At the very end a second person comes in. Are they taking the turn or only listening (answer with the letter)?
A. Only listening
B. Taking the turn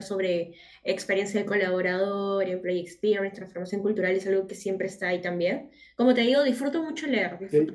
B